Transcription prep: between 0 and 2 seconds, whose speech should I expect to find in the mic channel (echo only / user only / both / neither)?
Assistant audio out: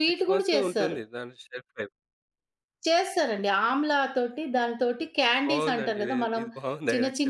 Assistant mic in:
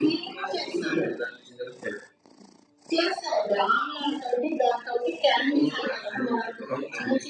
echo only